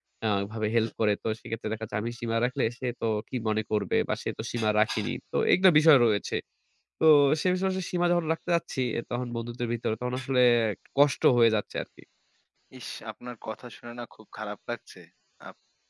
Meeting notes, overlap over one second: none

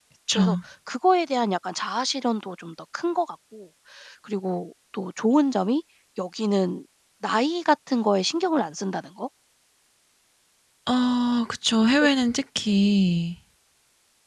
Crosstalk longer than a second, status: none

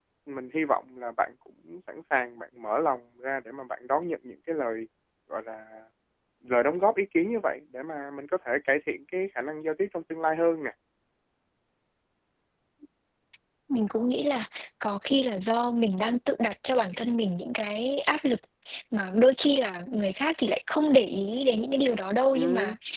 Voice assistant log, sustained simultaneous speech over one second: none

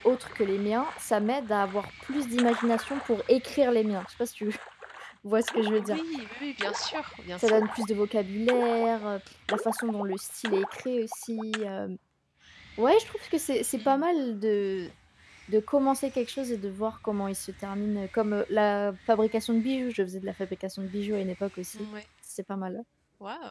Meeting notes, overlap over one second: none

